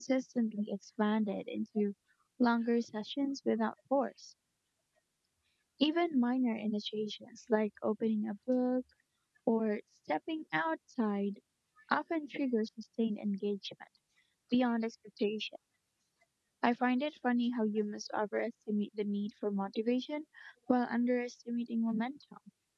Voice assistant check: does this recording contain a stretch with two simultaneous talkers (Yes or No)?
No